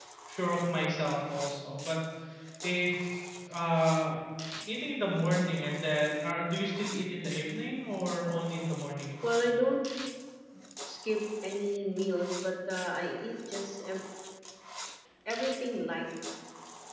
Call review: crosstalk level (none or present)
none